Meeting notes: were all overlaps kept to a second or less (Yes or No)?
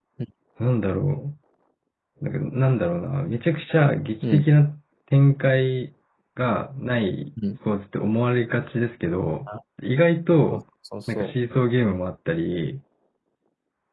Yes